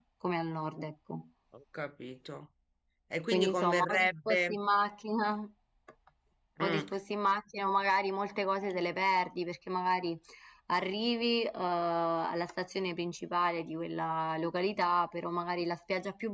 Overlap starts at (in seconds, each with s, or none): 3.3 s